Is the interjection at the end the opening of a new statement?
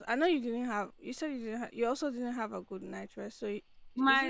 Yes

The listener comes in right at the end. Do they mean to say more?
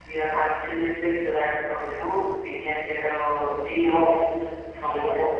No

